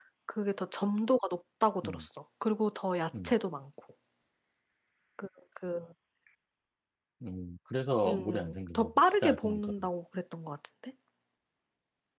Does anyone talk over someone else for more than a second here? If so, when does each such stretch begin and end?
8.0-9.8

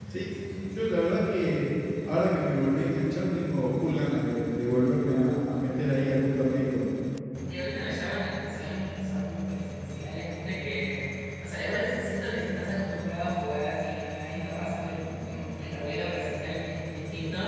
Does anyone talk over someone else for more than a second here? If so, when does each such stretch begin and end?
none

